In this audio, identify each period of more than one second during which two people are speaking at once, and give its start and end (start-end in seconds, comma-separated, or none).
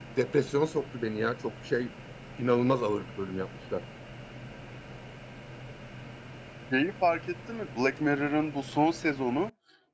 none